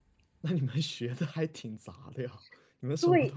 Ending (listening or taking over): listening